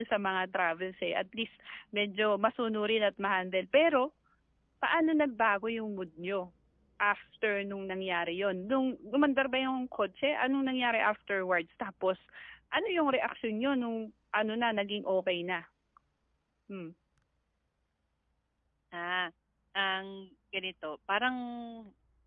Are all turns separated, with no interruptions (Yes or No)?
Yes